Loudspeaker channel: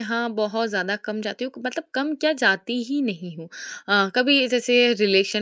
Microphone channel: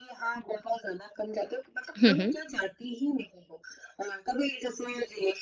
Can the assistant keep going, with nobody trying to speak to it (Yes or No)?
No